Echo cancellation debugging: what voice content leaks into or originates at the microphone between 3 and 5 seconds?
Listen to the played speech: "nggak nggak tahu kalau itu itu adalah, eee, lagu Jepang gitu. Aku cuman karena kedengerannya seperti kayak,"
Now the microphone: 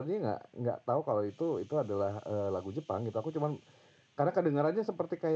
echo only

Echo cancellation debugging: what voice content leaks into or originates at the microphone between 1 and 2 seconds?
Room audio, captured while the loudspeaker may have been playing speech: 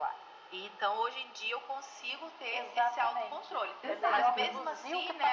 echo only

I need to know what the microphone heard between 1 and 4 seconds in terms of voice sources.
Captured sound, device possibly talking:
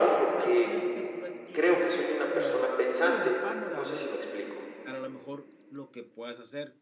both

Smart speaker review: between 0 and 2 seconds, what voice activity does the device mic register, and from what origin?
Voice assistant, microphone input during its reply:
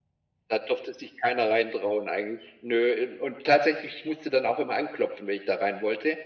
echo only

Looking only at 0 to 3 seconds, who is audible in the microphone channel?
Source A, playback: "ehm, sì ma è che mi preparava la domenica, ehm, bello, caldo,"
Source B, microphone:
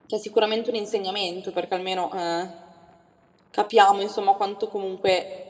user only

